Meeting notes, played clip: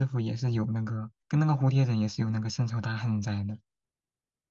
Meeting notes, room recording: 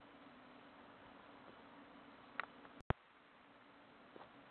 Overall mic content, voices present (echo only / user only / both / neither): neither